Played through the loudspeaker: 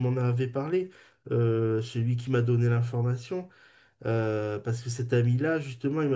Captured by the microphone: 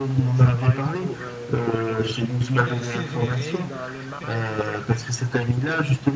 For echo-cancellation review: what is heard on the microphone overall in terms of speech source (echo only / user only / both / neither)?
both